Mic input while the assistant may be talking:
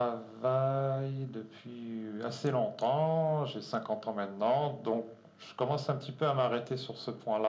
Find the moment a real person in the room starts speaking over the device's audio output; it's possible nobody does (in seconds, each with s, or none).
none